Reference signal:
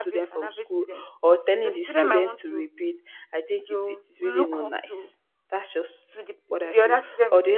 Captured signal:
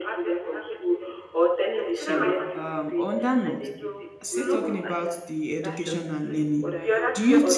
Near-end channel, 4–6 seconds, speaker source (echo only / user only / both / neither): both